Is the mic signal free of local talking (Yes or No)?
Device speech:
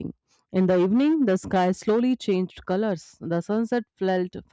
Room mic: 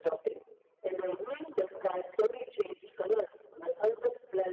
Yes